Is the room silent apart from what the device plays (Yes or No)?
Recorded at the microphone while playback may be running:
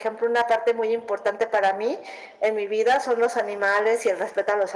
Yes